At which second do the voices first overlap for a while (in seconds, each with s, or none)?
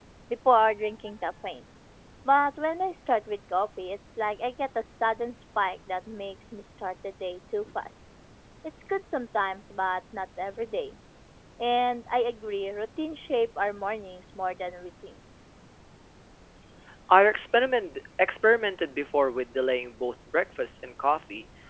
none